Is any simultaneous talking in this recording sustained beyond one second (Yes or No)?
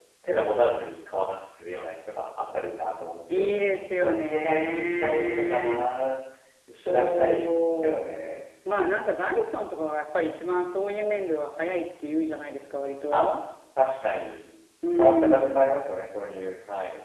Yes